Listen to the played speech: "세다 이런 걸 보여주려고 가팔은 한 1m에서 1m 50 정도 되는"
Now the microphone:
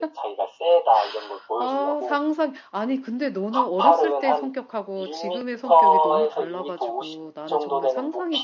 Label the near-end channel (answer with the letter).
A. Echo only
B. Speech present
B